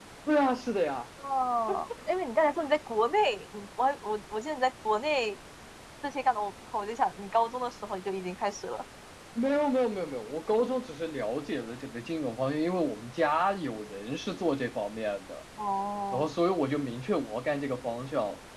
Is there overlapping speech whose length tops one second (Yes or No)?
No